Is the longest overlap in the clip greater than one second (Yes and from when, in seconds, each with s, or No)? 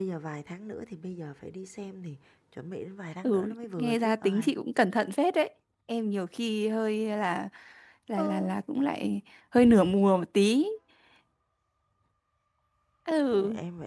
Yes, from 3.2 s